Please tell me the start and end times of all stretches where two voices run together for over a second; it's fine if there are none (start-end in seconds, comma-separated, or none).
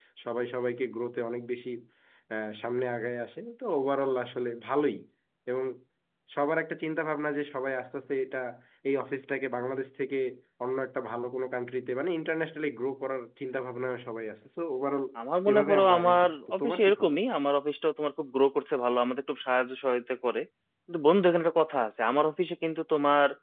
15.5-17.2